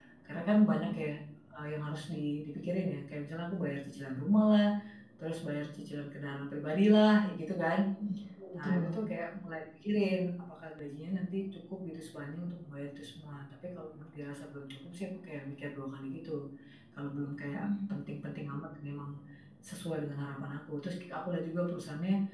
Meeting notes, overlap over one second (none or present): none